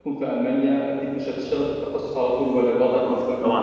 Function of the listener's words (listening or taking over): taking over